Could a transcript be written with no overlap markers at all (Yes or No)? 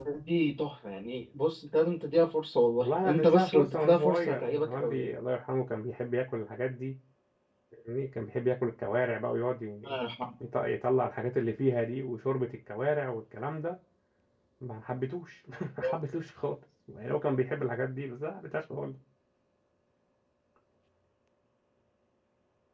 No